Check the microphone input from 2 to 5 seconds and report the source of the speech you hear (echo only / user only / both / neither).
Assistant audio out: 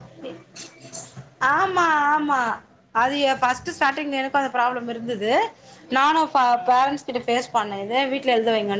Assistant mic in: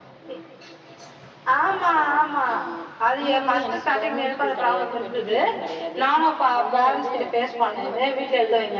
both